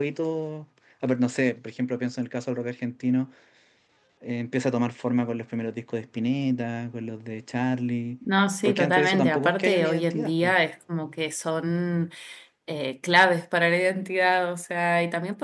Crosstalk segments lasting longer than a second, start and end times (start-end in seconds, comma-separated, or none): 8.6-10.5